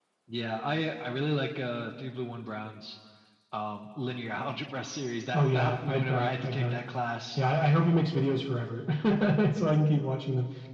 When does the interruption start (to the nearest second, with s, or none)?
5 s